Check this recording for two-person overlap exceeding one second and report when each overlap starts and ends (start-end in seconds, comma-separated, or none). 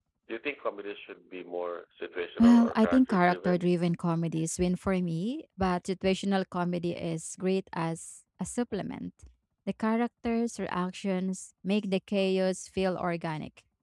2.4-3.7